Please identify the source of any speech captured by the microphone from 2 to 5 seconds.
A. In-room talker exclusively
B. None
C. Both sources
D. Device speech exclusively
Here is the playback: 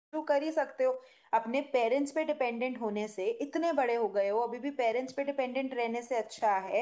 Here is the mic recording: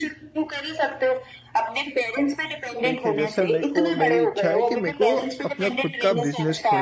C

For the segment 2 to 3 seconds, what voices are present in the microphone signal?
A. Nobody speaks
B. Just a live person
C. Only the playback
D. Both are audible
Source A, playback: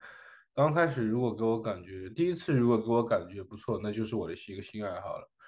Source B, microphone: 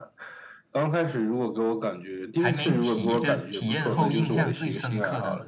D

